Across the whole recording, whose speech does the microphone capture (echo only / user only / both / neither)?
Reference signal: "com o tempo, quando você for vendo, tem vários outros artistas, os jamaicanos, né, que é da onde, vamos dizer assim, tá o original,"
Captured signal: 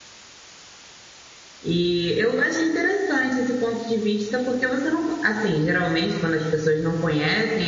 user only